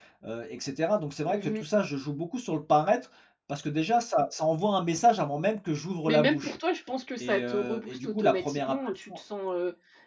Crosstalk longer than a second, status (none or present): present